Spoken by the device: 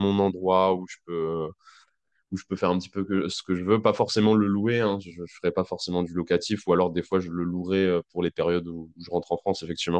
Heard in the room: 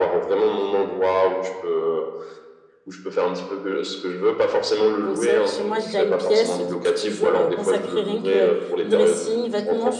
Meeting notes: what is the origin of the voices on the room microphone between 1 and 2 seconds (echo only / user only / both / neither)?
echo only